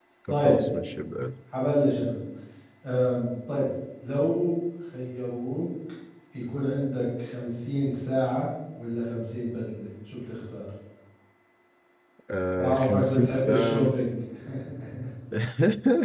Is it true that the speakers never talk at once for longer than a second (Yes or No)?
No